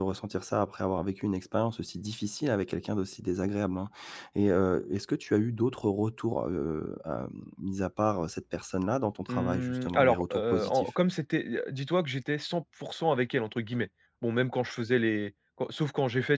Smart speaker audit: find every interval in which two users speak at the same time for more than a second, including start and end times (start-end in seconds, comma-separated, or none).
9.3-10.9